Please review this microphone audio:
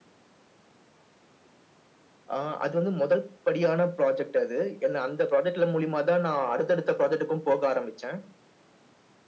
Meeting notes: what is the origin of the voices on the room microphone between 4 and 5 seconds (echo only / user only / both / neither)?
echo only